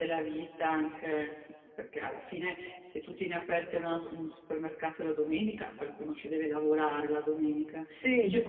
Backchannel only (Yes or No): Yes